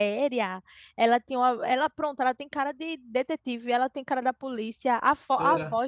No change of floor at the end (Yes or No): Yes